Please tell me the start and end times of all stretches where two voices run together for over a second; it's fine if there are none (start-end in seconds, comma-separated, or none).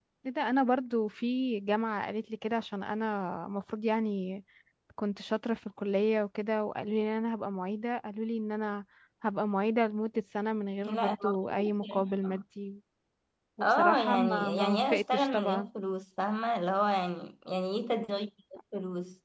10.8-12.4, 13.6-15.7